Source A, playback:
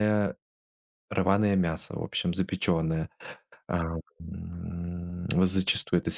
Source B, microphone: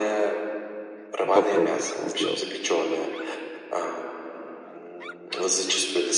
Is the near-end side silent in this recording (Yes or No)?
No